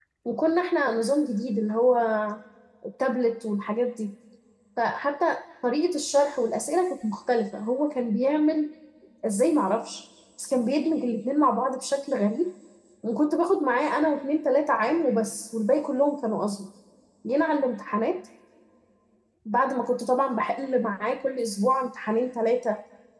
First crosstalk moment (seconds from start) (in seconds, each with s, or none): none